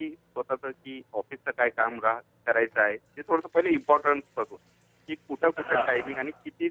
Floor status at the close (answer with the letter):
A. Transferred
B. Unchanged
B